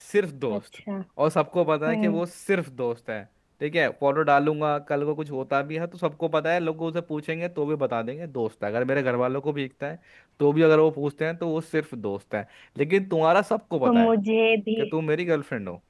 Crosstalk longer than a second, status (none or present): none